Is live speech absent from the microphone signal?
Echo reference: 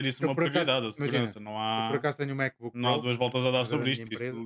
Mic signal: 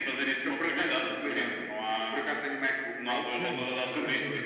No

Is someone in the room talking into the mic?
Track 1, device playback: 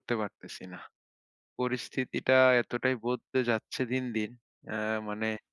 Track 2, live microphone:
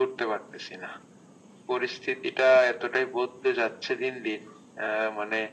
No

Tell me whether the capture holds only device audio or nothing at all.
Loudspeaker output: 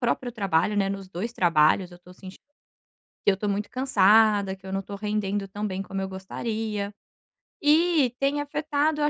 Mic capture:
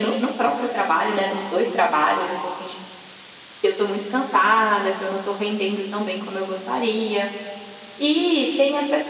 Yes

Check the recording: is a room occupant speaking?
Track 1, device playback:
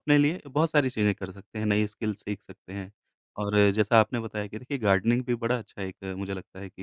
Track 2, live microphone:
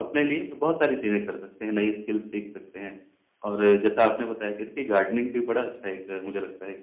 No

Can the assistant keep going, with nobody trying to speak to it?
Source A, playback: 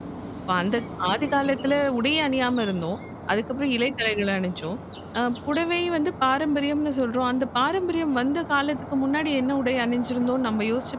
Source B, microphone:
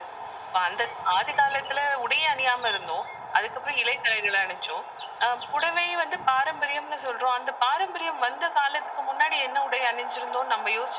Yes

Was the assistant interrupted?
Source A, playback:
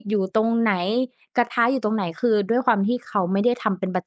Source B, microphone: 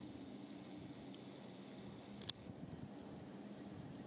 No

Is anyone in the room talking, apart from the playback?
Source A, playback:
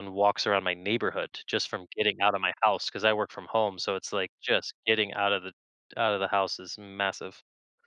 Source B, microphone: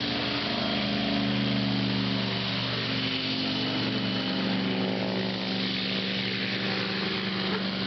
No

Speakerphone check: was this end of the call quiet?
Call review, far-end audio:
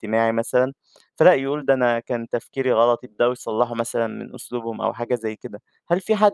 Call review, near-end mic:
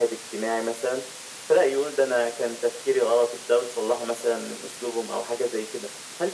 Yes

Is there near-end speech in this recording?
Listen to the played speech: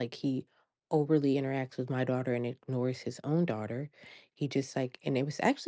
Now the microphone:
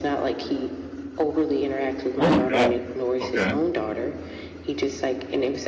Yes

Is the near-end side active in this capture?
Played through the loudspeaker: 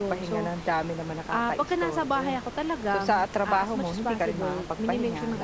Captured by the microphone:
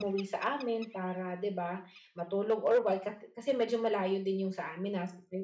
Yes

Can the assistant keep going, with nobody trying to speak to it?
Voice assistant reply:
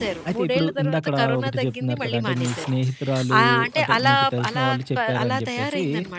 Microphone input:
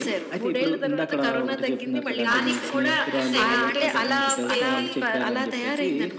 No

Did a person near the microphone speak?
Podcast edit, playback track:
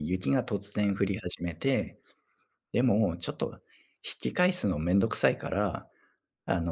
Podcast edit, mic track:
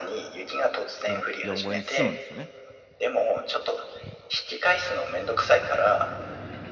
Yes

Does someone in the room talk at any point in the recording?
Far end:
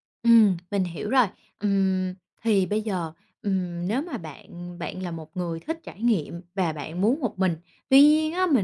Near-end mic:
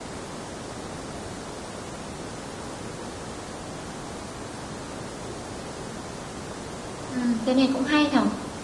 Yes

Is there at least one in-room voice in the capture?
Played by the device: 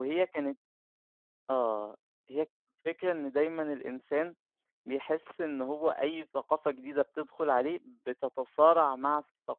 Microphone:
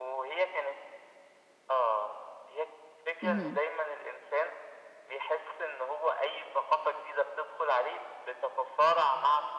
Yes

